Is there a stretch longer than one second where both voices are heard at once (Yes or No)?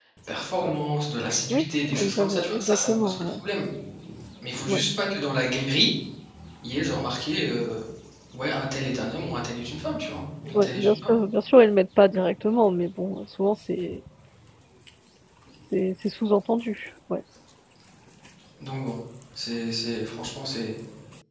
Yes